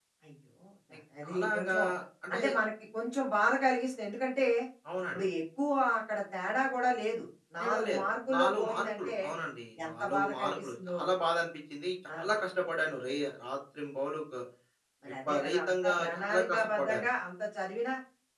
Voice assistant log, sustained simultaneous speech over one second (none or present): present